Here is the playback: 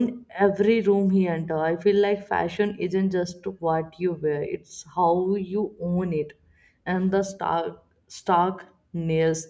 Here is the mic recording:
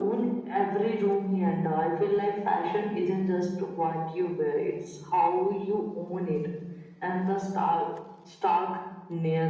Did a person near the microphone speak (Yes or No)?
No